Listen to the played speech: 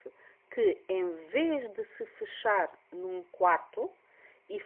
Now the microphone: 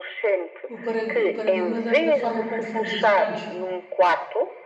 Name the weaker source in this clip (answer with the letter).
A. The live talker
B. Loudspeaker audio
A